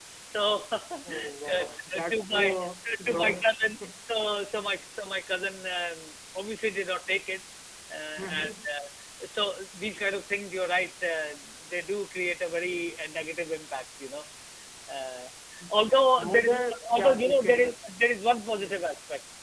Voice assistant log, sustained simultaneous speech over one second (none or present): present